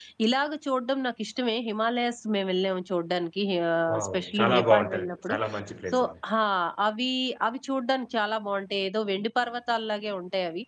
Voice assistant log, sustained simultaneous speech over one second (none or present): present